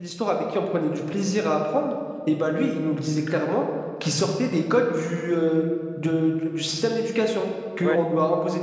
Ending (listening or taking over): listening